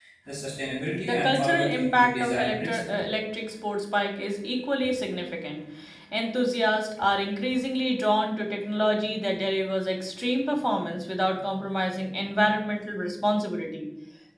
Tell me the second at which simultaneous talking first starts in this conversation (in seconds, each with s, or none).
1.1 s